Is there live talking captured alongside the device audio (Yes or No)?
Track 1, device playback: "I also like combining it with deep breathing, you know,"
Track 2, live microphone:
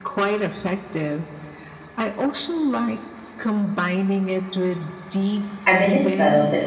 Yes